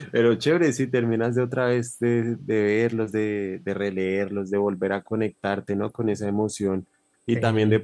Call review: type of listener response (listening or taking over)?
listening